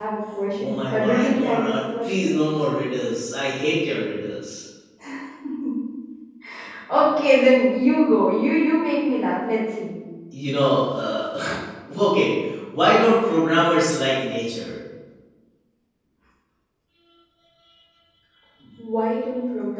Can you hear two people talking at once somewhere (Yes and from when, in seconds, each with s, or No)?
Yes, from 0.6 s